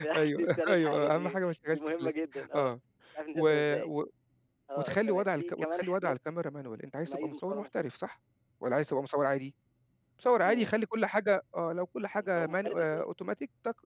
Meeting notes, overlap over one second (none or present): present